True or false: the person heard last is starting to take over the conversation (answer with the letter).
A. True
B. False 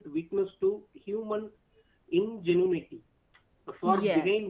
B